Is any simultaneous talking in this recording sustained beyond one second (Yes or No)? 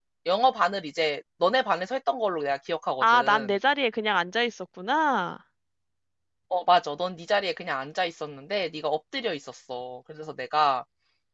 No